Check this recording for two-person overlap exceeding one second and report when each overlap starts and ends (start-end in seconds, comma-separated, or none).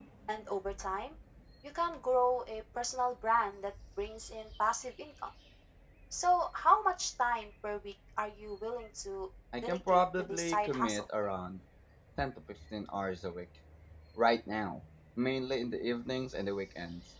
9.6-11.0